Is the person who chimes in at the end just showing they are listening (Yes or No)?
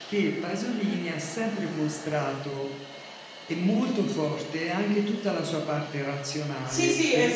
No